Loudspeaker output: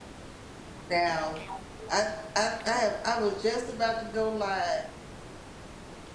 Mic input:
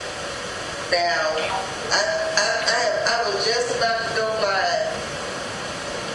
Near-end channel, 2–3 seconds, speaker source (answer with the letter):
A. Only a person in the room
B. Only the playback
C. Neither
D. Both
B